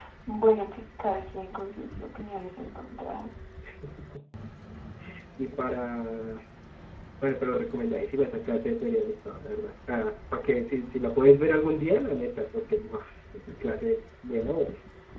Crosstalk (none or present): none